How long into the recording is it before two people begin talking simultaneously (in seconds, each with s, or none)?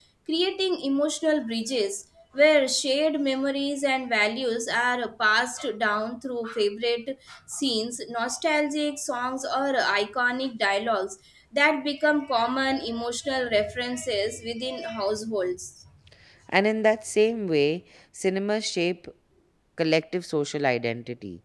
none